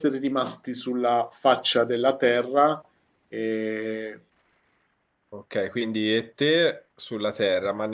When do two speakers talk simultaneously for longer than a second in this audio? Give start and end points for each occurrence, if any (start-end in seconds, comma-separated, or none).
none